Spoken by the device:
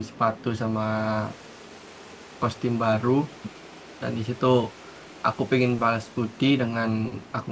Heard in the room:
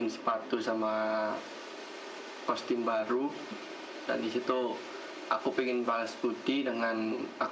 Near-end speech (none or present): none